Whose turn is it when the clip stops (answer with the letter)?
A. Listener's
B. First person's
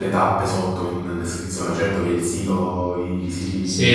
A